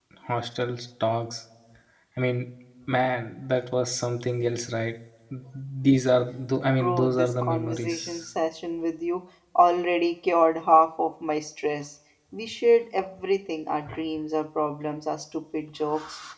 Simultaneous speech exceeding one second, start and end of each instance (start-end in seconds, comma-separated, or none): 6.8-8.2